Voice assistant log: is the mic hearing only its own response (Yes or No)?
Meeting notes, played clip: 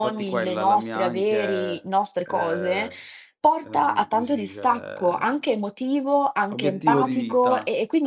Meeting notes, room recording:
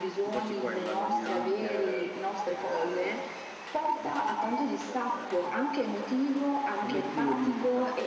Yes